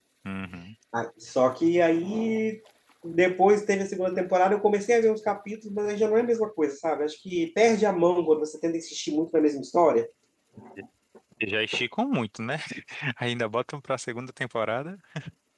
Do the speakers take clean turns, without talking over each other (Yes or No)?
Yes